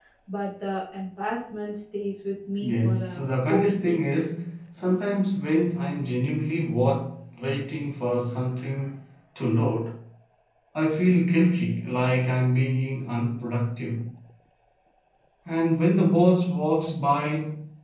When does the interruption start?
2.6 s

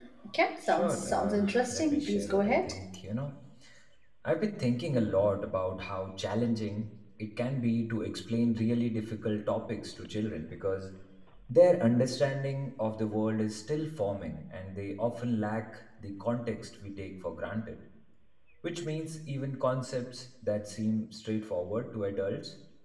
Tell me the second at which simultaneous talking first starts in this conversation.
0.7 s

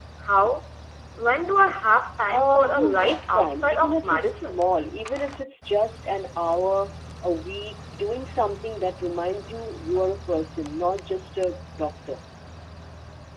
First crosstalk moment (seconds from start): 2.3 s

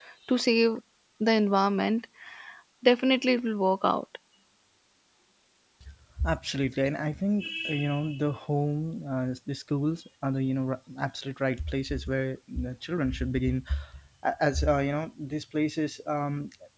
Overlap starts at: none

